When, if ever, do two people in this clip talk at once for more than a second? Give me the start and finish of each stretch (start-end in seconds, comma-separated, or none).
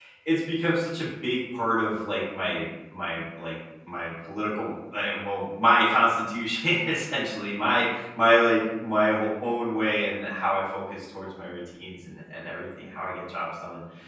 none